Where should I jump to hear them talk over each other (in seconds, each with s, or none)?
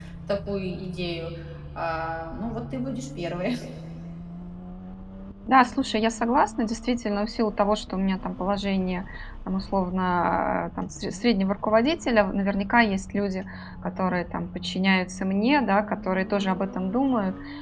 none